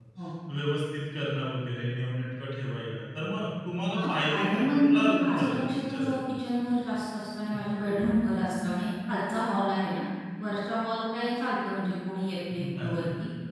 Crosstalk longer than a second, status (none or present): present